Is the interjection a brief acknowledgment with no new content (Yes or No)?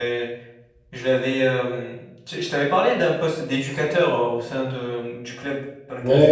No